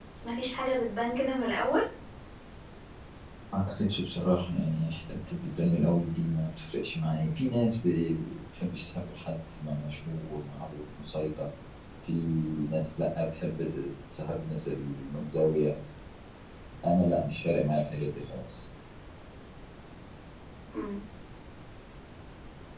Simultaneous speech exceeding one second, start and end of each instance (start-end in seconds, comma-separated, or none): none